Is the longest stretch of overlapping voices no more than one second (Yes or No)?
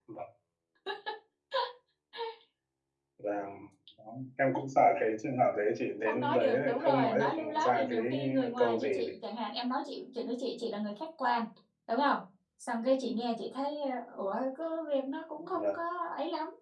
No